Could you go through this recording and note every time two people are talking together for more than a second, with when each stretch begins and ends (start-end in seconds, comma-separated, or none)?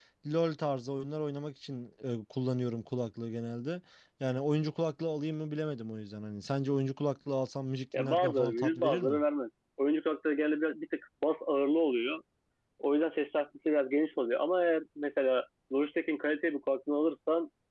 8.0-9.2